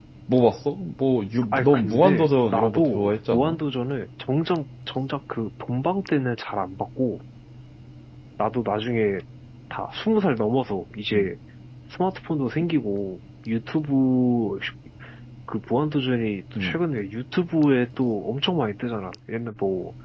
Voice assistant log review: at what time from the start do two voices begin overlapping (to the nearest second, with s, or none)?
2 s